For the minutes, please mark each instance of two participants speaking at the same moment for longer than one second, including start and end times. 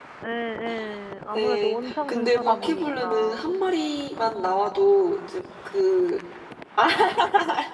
1.3-3.6

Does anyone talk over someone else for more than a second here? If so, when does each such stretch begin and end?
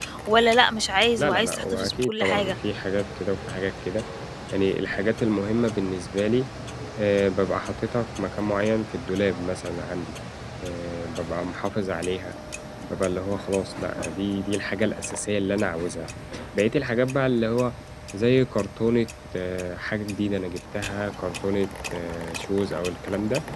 1.2-2.5

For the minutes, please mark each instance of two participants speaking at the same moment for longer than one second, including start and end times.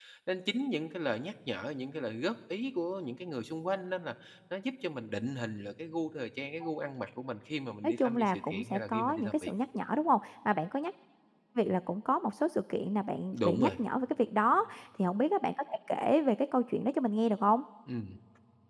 7.8-9.5

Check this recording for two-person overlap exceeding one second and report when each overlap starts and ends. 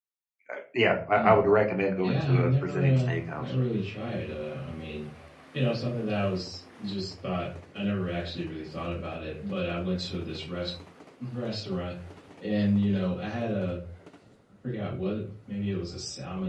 2.0-3.5

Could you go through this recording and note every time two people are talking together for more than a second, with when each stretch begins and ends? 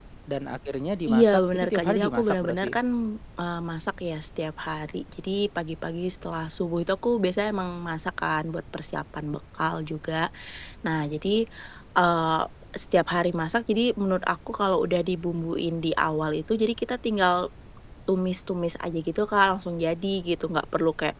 1.1-2.8

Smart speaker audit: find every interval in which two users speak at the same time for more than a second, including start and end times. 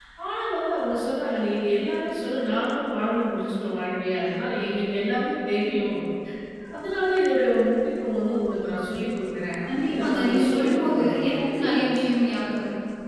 9.7-11.5

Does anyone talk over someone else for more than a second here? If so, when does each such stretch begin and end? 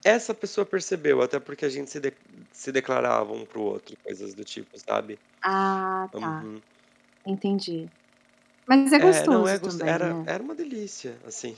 9.0-10.3

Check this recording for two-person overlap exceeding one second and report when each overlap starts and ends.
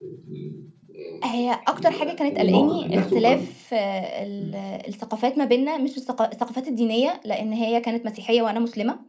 2.0-3.4

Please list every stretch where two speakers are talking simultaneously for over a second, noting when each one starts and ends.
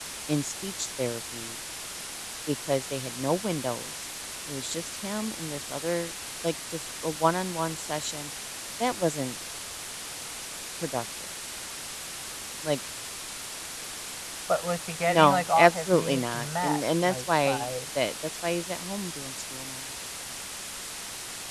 15.1-17.7

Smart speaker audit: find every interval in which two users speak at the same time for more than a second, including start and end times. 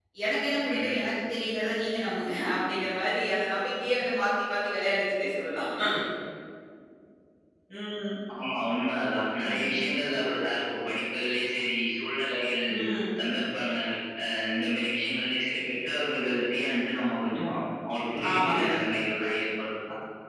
none

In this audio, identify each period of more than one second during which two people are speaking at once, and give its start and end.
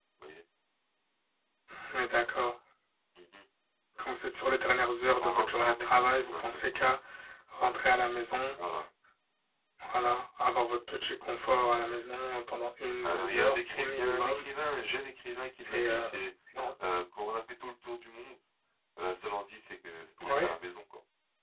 5.2-6.9, 13.0-14.4

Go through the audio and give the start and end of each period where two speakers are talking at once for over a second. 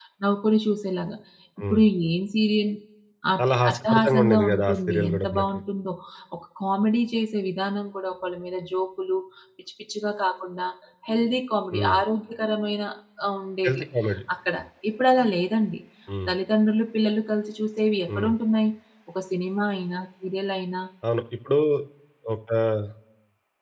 3.4-5.4

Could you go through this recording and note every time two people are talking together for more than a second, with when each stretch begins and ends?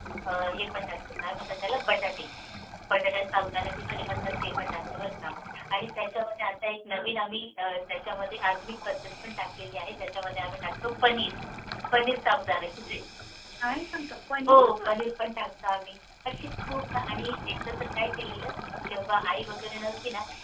none

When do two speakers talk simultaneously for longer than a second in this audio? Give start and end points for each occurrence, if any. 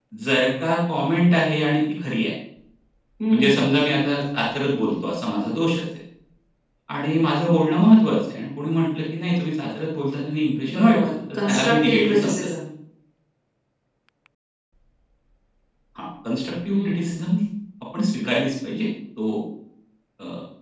10.8-12.5

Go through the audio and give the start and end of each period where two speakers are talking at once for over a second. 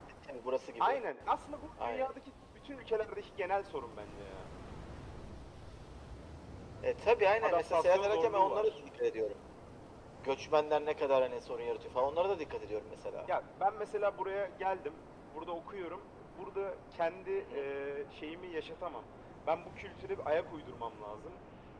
7.4-8.7

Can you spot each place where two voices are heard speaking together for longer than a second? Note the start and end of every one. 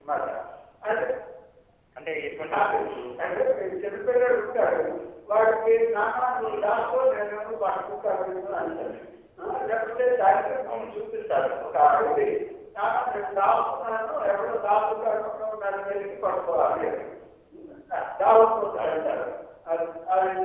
none

